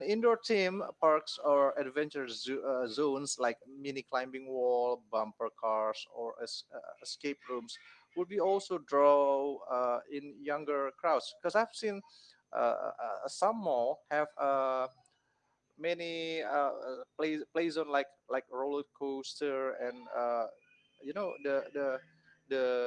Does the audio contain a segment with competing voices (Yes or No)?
No